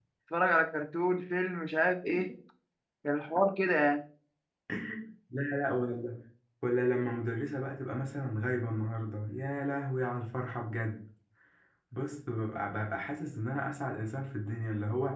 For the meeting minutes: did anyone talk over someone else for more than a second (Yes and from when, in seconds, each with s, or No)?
No